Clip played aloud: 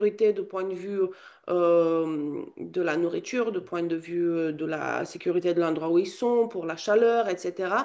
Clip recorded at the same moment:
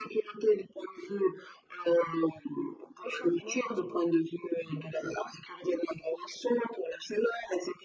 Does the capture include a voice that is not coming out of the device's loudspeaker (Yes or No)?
Yes